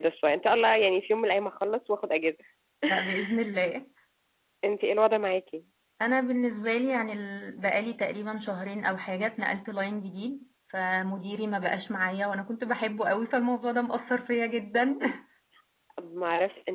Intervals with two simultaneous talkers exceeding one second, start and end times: none

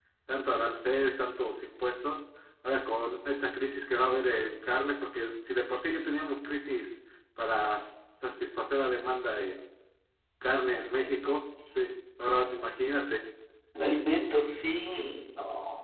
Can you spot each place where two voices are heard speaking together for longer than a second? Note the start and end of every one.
none

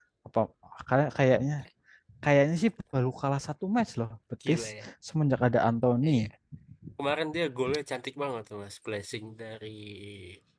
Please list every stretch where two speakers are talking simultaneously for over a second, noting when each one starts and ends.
none

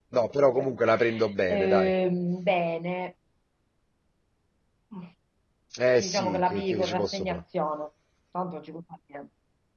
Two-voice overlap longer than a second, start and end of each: 6.0-7.4

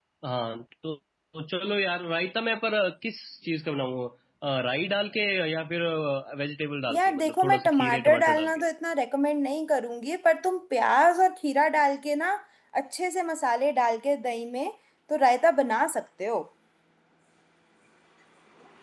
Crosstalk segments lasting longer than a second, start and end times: 6.9-8.6

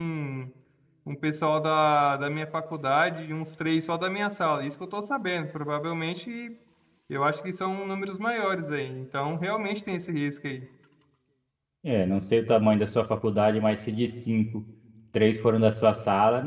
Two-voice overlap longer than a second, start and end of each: none

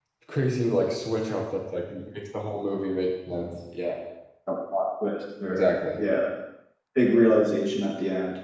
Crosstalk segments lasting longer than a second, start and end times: none

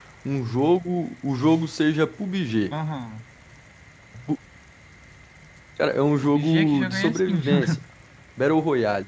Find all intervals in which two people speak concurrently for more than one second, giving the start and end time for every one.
6.2-7.8

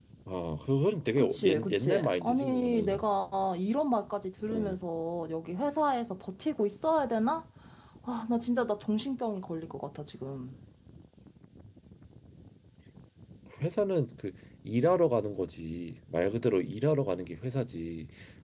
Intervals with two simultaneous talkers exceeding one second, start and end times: 1.2-3.0

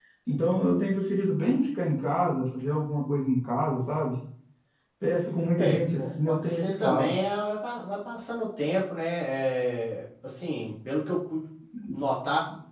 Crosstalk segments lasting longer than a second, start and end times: 5.6-7.1

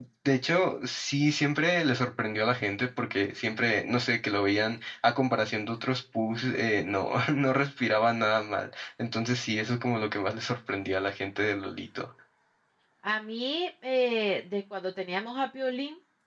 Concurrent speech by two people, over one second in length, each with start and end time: none

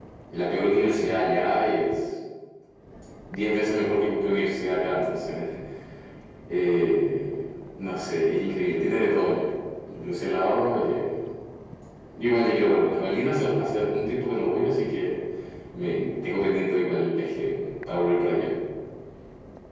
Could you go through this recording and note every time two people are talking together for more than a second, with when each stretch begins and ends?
none

